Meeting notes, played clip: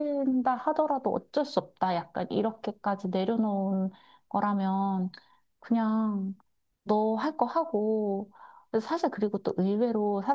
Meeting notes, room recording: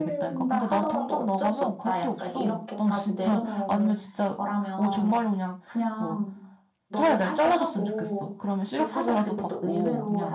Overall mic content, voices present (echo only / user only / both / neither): both